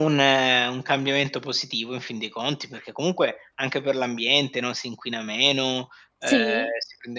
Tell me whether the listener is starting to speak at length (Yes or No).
No